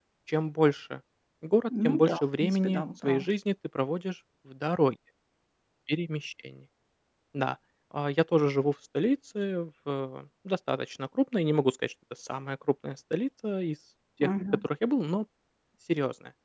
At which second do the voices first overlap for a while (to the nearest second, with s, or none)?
2 s